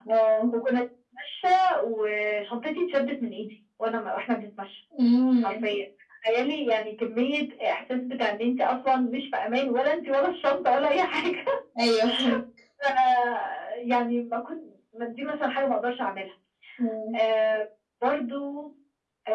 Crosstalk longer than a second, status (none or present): none